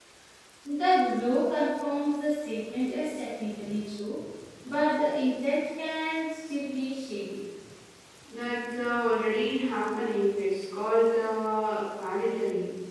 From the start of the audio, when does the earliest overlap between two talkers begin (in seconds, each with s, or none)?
none